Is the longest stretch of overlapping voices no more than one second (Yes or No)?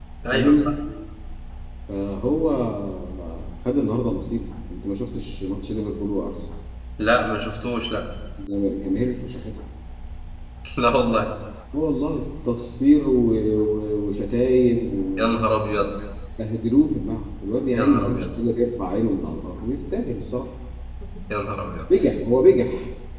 Yes